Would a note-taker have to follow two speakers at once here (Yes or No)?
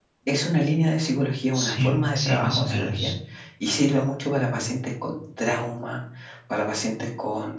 Yes